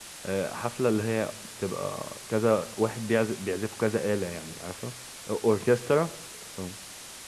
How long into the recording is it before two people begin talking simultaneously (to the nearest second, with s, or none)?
none